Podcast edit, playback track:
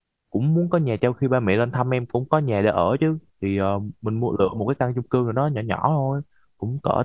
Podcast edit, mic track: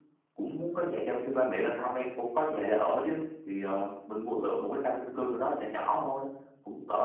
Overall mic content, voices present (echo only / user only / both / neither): echo only